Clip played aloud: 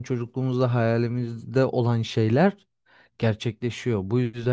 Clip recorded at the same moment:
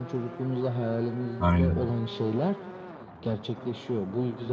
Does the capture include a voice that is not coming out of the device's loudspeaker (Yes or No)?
Yes